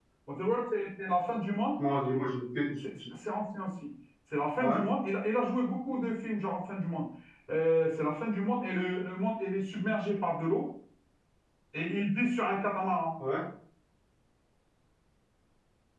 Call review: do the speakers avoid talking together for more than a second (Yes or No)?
Yes